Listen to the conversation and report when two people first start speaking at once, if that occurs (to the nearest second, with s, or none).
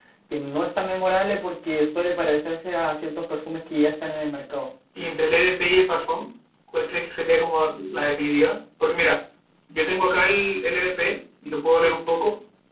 none